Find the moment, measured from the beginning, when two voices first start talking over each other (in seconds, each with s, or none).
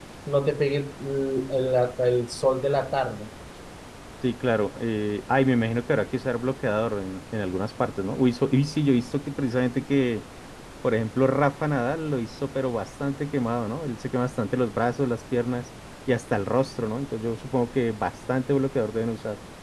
none